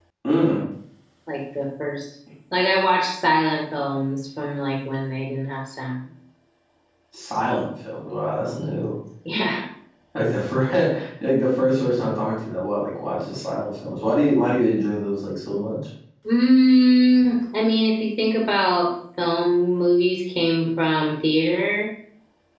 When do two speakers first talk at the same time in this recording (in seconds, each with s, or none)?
none